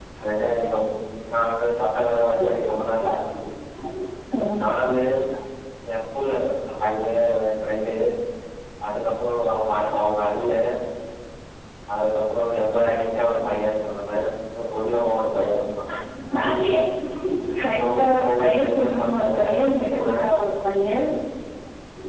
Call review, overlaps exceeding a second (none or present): present